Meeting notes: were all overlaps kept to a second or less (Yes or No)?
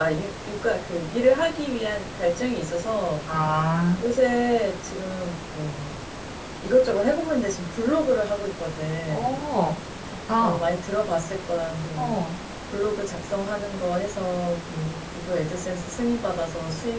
Yes